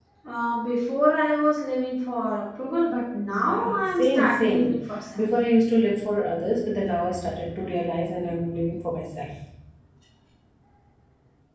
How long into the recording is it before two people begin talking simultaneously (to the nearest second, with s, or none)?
3 s